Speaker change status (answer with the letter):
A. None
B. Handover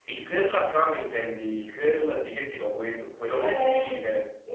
B